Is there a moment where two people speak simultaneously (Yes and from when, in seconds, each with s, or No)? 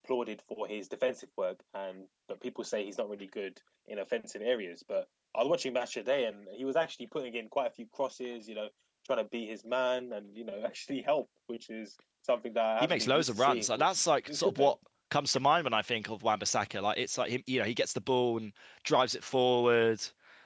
Yes, from 12.8 s